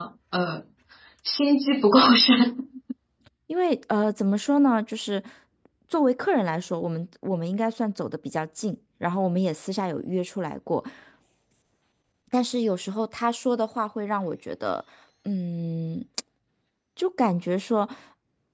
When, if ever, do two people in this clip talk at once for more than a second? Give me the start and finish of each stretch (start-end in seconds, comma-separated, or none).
none